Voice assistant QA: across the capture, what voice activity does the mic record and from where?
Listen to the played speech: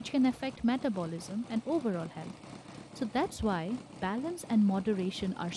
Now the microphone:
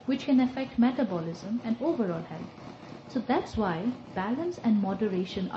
echo only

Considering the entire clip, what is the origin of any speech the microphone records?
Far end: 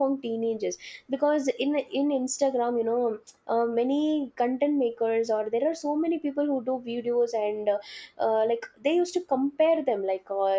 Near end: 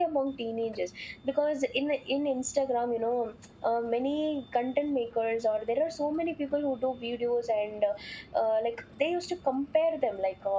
echo only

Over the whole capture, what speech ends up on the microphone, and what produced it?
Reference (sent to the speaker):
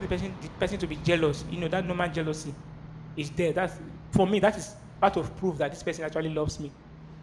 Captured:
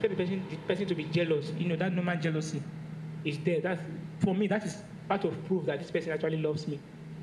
echo only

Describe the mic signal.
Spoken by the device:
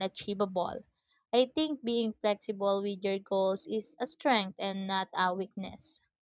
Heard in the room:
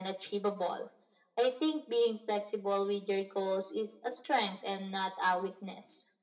echo only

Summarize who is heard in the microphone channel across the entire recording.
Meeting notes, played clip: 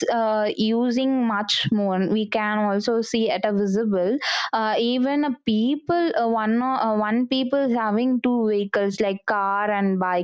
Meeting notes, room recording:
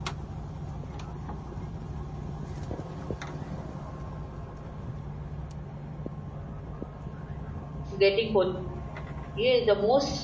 user only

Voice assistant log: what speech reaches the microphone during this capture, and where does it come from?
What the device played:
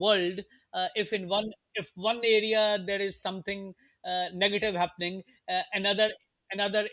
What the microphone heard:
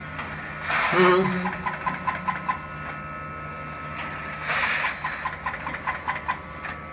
user only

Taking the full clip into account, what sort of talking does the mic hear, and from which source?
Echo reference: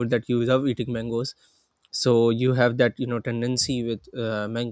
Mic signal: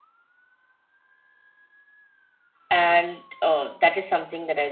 user only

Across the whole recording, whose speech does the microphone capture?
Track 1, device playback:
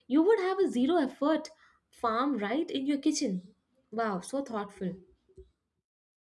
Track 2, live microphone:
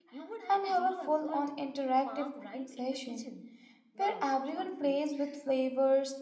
both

